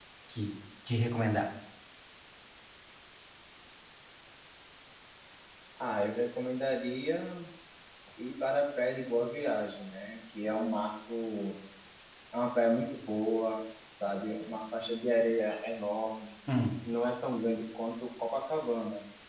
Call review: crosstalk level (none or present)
none